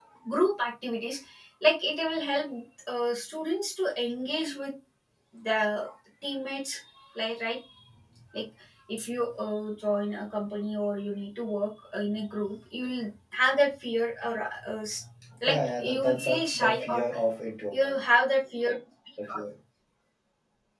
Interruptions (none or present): present